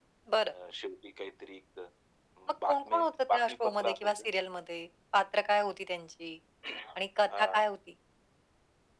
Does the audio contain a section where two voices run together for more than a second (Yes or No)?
Yes